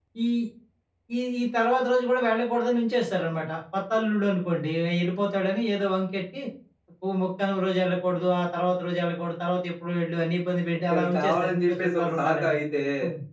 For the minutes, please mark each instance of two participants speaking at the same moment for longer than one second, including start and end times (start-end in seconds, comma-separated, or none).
10.9-12.6